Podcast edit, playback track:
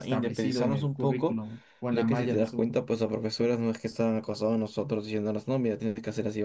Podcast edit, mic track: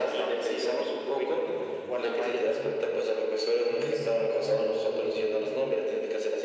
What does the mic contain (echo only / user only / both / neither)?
both